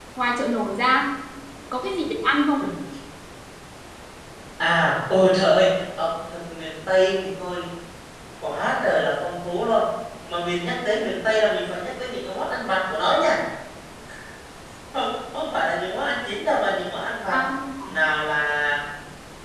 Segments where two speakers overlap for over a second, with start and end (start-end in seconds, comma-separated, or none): none